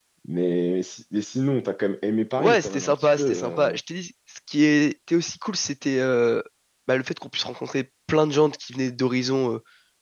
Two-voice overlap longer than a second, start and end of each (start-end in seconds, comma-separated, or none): 2.4-3.8